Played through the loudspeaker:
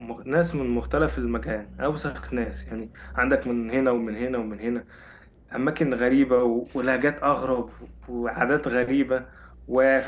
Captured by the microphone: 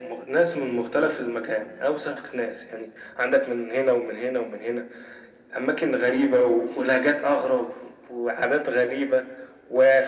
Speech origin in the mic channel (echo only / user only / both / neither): echo only